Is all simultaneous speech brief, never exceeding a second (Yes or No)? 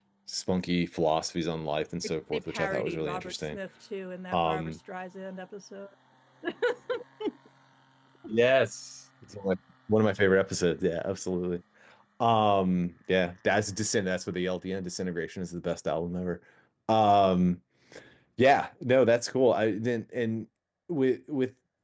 No